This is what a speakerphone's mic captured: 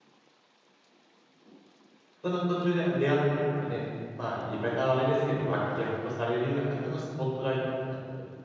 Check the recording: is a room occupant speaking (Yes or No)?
Yes